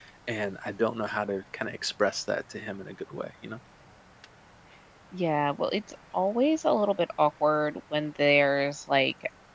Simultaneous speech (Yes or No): No